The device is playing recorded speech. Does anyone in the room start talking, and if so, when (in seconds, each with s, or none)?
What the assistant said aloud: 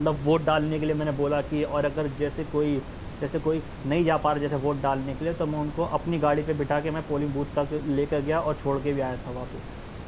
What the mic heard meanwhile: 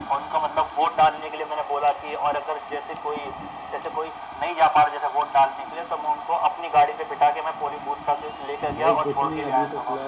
8.7 s